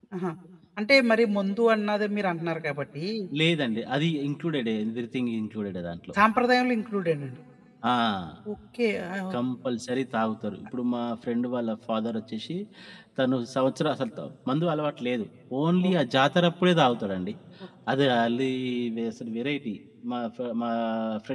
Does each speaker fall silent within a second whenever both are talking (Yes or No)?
Yes